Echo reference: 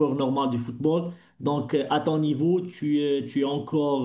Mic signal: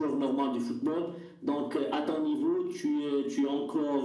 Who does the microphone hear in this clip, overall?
echo only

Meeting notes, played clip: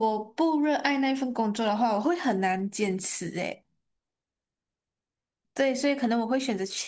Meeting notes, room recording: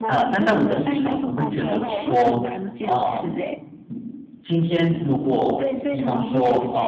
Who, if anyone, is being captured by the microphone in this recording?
both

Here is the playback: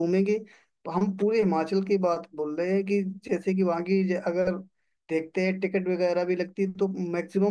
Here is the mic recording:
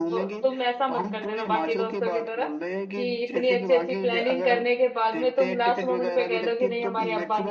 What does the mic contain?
both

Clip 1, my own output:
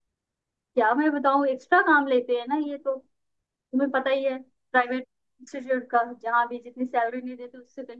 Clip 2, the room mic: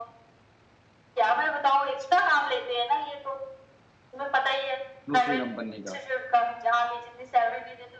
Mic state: both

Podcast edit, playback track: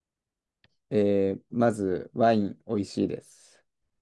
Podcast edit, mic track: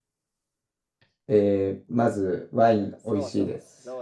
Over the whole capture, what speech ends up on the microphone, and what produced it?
both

